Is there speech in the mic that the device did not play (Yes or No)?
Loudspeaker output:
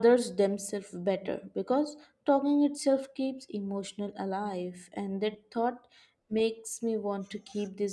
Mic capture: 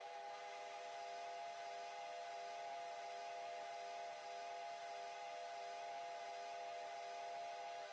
No